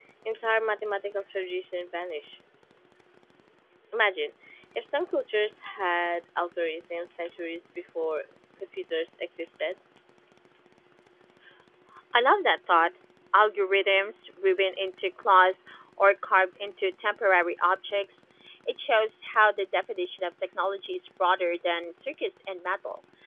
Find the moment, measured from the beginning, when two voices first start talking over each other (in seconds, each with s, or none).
none